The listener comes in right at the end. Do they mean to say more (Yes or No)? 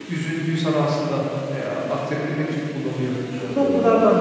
No